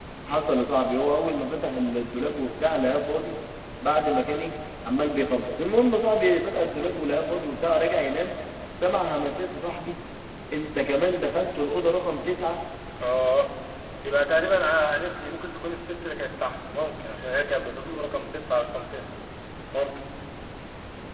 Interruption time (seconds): none

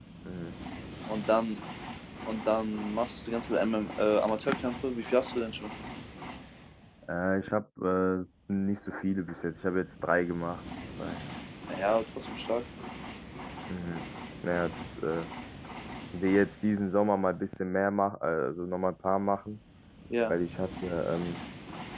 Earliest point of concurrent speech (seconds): none

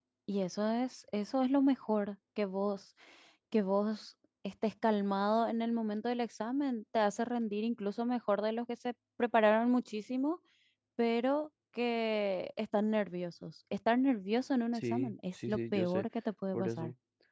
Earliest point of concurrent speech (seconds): 14.7 s

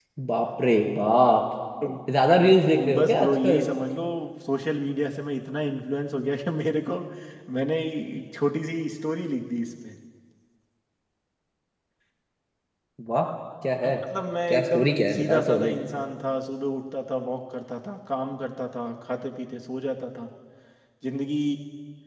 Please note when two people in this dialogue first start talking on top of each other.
2.3 s

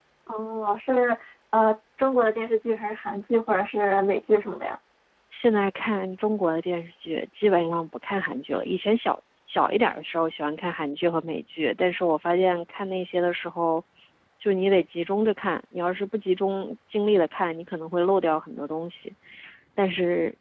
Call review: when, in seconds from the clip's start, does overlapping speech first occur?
none

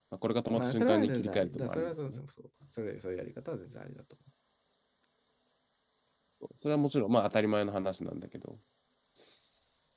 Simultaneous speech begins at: 0.5 s

